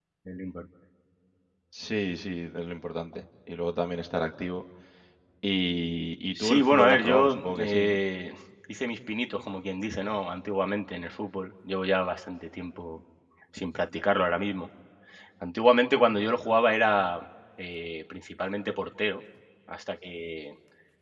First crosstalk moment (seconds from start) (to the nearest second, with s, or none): 6 s